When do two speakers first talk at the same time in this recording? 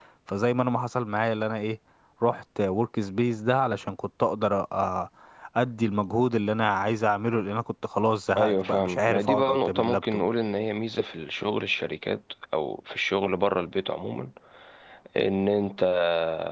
8 s

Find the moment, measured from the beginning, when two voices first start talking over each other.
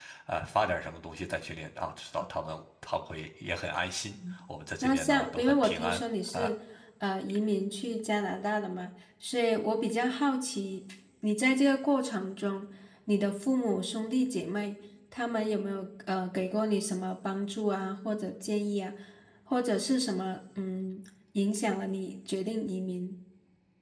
5 s

